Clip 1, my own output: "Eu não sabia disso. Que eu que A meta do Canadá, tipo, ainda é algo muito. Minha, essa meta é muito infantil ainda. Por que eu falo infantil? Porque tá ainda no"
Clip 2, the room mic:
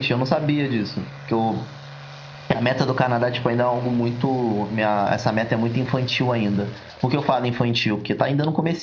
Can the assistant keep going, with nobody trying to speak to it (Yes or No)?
Yes